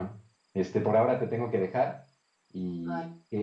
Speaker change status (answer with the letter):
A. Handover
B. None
B